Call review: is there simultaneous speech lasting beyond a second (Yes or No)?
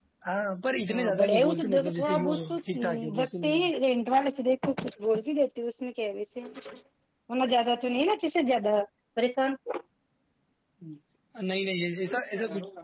Yes